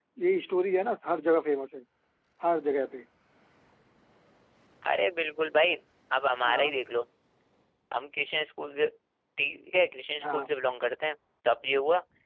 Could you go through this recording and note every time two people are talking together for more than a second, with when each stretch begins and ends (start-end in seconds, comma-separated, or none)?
none